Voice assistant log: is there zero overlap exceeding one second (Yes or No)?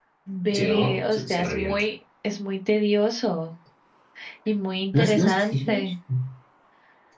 No